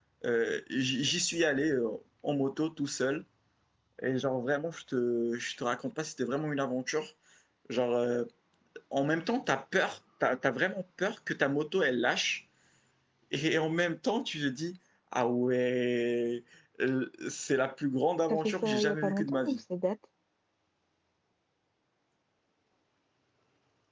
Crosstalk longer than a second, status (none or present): present